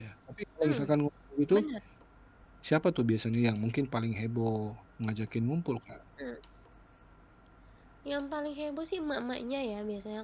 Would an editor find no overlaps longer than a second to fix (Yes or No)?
Yes